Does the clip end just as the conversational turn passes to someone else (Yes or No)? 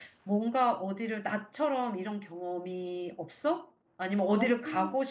No